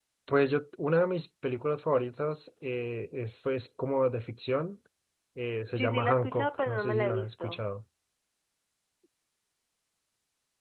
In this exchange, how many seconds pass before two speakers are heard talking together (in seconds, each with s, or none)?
5.8 s